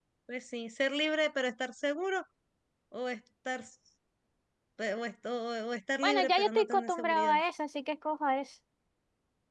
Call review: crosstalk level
present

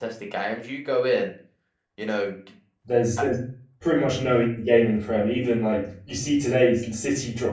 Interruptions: none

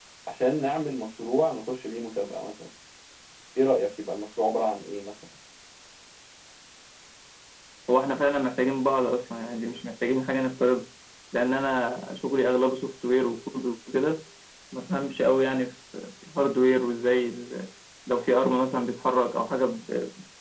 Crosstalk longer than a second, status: none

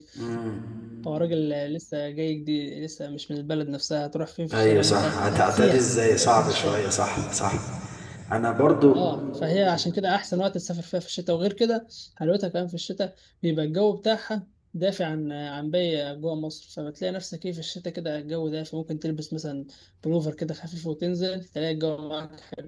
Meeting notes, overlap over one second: present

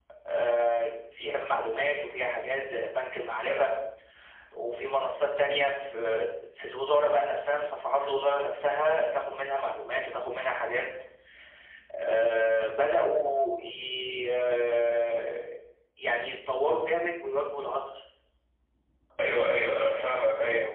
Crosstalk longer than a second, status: none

